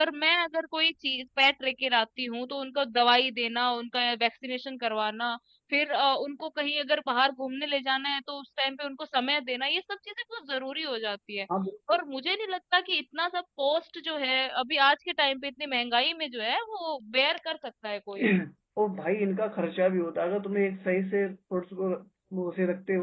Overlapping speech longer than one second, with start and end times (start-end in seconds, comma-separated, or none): none